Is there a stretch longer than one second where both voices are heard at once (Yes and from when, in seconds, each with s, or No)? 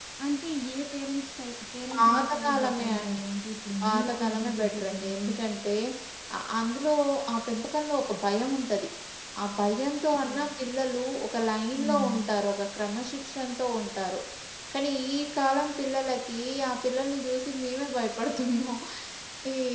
Yes, from 1.9 s